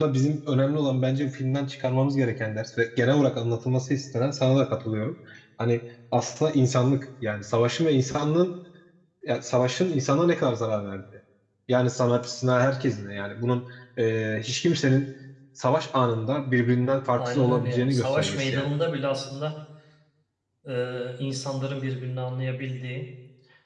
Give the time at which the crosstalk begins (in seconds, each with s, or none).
17.2 s